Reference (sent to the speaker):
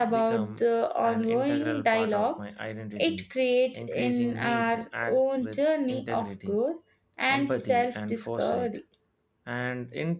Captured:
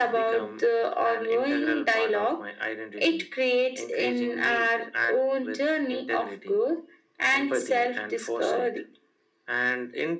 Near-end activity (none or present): none